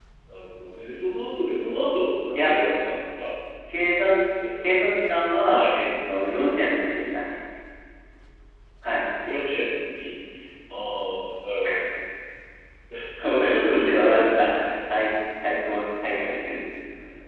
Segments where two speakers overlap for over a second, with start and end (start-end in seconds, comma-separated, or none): 13.2-14.7